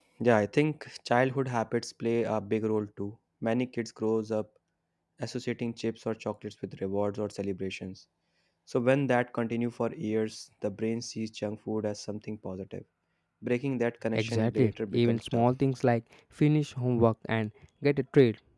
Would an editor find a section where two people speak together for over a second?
Yes, from 14.2 s

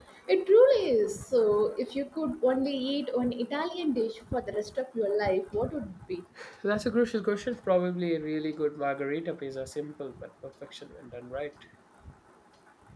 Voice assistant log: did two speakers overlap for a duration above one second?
No

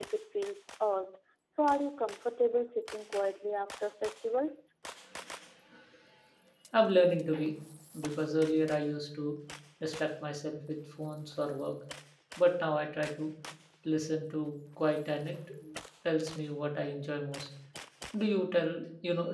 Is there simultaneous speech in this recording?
No

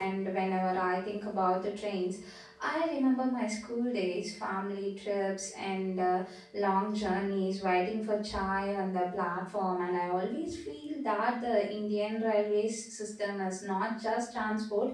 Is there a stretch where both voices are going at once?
No

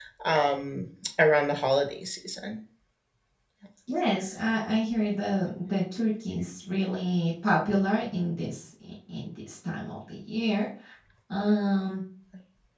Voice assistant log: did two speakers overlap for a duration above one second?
No

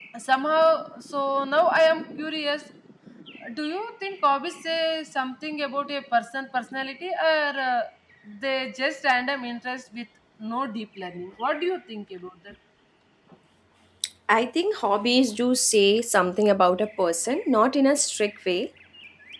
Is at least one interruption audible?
No

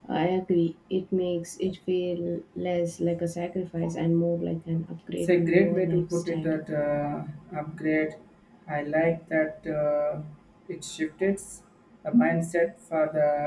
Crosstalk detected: Yes, from 5.2 s

